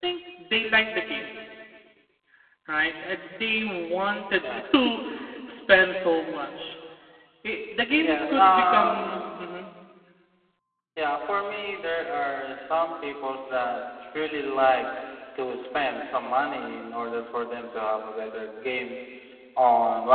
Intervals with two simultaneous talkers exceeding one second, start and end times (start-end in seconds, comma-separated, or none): 8.0-9.2